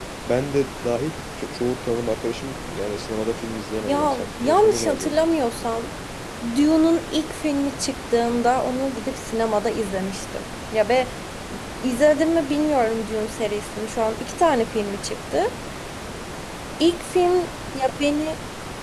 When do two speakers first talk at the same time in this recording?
3.8 s

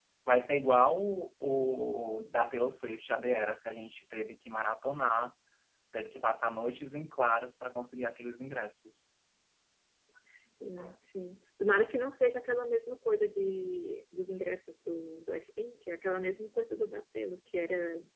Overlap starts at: none

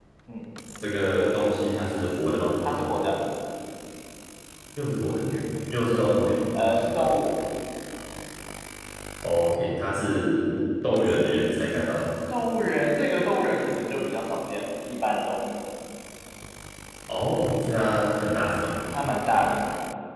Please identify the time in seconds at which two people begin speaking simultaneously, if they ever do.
none

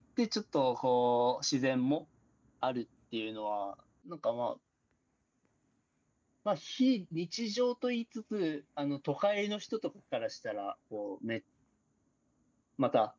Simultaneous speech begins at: none

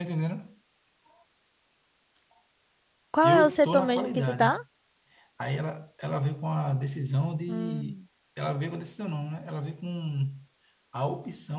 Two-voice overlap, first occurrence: 3.2 s

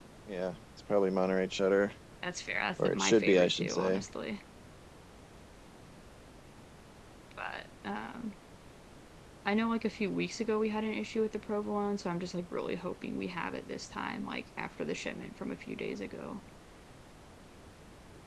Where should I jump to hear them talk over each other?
2.8 s

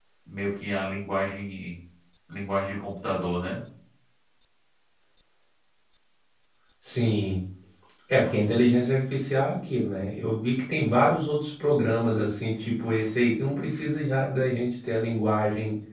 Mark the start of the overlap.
none

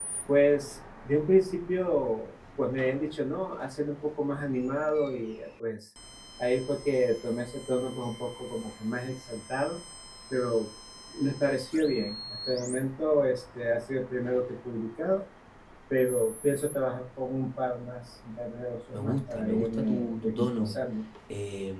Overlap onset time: 18.9 s

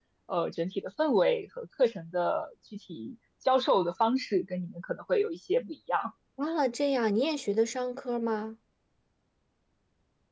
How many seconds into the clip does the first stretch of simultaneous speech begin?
none

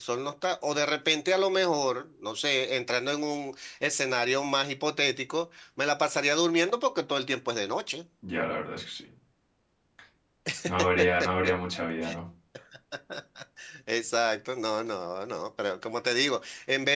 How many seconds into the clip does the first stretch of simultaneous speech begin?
none

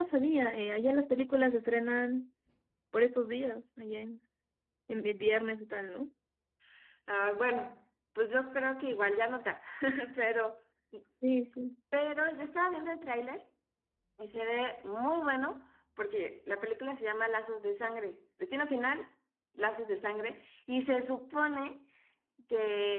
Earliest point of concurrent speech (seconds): none

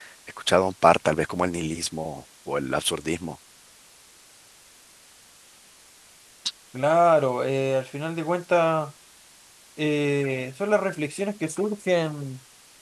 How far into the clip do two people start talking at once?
none

